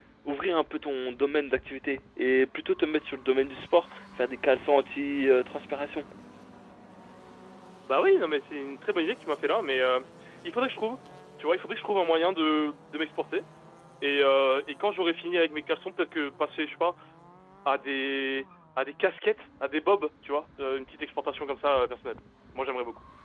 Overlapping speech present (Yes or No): No